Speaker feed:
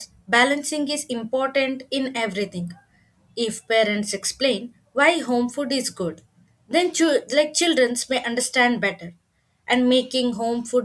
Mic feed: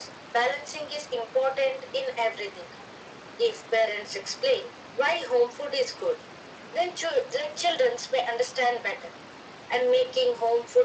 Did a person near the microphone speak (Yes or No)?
No